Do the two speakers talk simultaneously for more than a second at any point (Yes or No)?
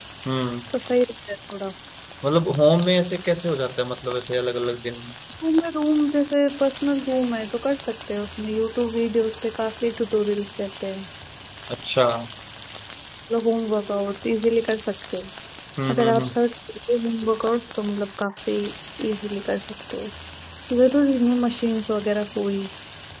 No